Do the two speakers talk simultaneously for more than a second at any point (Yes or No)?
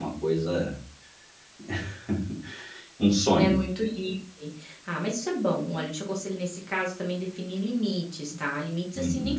No